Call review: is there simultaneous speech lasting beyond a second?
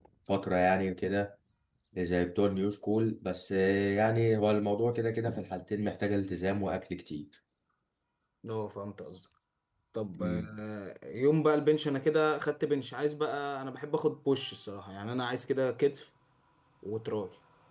No

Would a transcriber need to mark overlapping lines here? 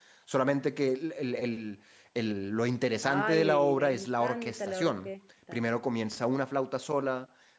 Yes, from 3.0 s

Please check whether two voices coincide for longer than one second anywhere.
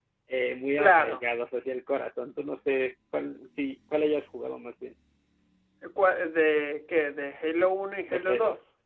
No

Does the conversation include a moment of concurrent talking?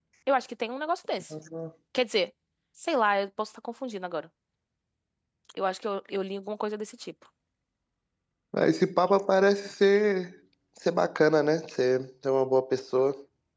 No

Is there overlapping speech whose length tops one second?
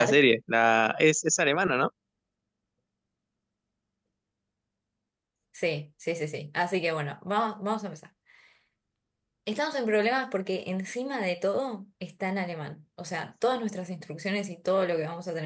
No

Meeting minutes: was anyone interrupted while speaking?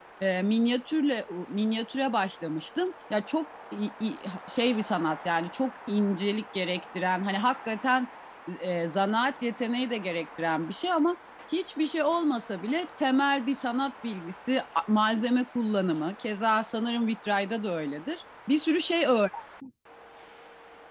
No

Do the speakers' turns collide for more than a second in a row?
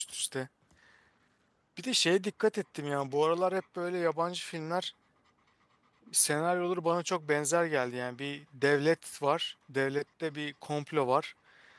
No

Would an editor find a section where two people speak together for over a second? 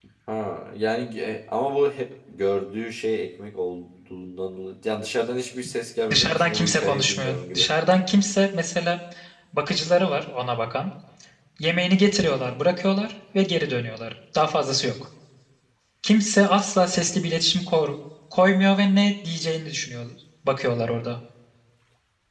Yes, from 6.1 s

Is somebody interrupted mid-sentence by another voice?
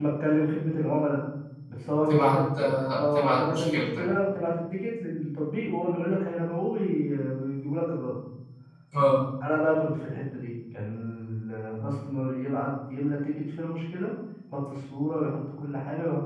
Yes, from 2.1 s

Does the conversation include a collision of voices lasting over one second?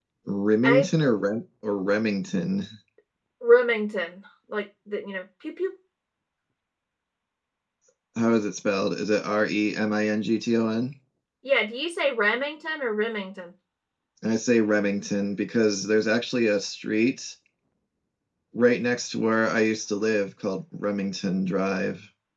No

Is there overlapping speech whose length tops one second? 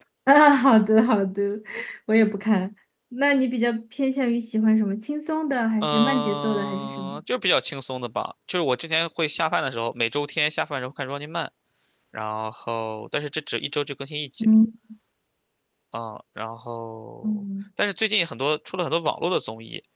Yes, from 5.8 s

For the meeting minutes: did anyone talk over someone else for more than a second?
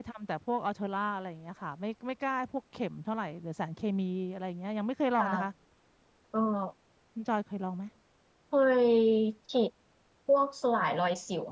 No

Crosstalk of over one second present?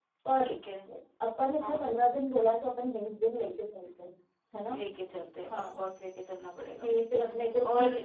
No

